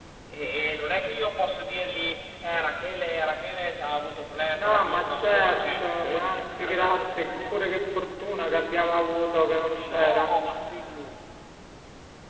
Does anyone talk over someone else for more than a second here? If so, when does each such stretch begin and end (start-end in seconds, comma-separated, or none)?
4.6-7.3